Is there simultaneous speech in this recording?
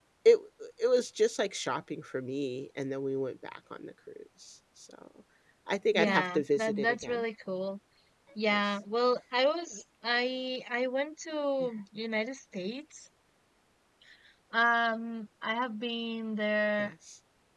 Yes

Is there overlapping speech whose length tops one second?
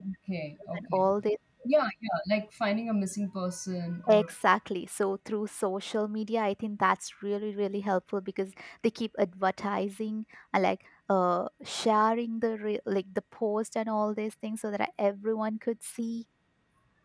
No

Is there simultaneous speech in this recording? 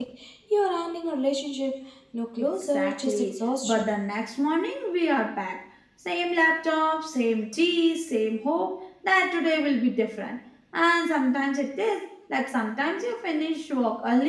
Yes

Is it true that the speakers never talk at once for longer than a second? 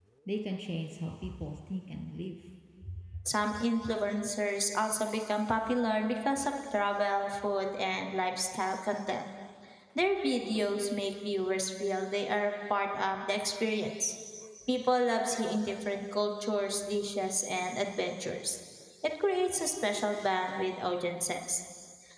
Yes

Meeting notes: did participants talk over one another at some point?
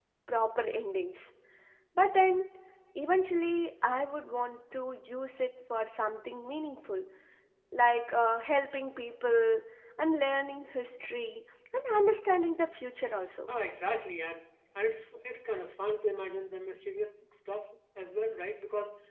No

